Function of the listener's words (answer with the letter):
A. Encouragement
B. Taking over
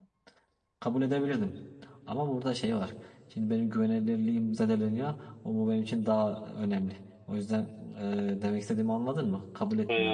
B